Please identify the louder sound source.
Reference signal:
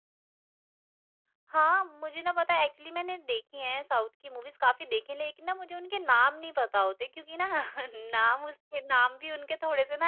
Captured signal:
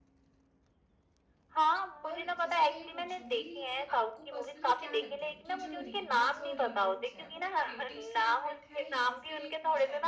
echo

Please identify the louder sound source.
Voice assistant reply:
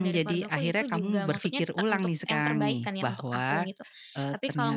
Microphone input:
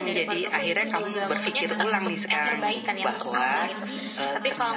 echo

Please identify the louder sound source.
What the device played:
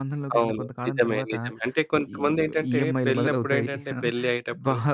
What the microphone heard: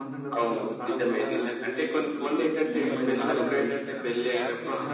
echo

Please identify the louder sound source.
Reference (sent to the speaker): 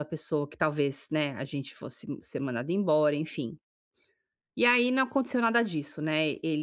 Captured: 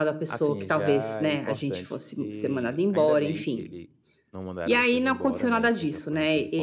echo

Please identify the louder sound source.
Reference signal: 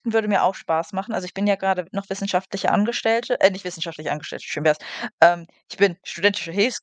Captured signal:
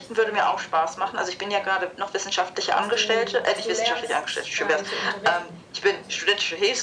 echo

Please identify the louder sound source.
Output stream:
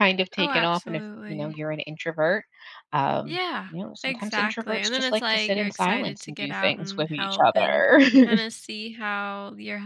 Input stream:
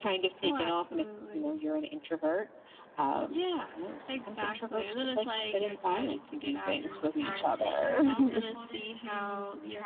echo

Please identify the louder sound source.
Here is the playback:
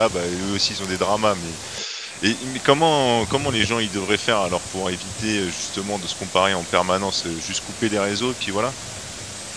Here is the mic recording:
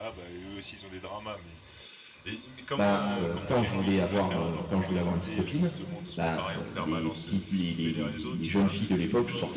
user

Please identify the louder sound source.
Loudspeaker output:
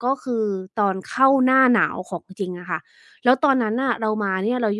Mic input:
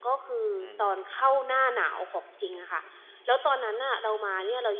echo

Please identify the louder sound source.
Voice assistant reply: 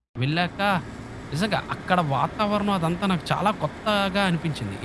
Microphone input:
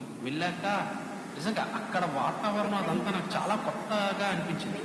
echo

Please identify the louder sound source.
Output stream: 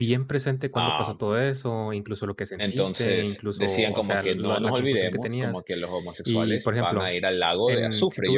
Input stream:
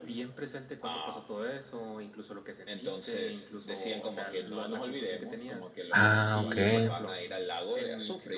user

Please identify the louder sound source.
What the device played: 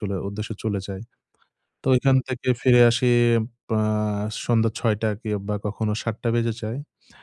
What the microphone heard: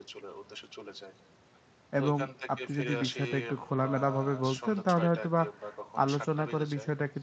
user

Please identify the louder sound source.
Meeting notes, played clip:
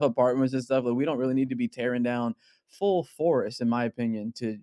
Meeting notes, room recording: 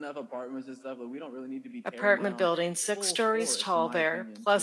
user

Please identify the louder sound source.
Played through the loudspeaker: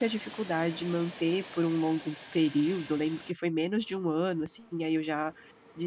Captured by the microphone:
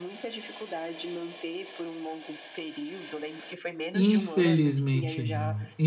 user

